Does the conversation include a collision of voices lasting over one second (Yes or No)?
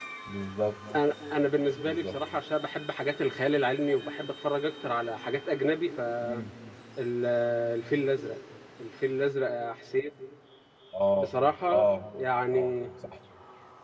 No